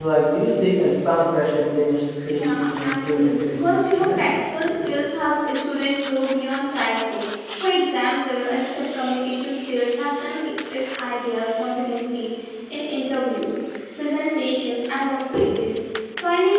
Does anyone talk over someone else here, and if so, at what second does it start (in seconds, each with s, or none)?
2.3 s